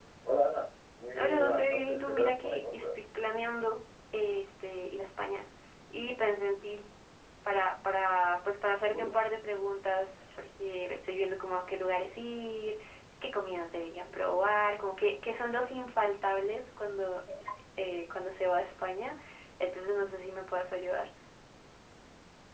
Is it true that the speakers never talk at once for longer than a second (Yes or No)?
No